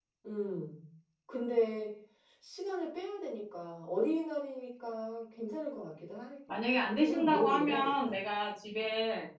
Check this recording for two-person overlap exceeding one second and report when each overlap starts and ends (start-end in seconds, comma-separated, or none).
6.7-8.2